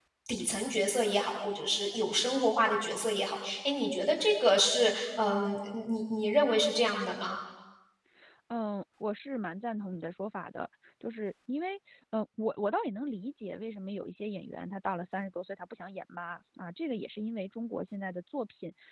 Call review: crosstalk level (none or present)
none